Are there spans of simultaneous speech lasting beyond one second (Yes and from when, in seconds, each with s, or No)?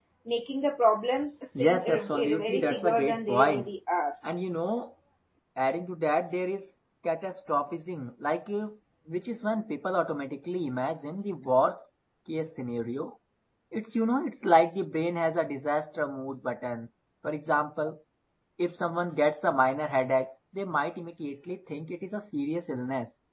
Yes, from 1.6 s